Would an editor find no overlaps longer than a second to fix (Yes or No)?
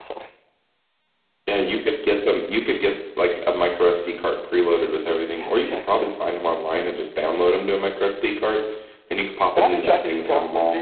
No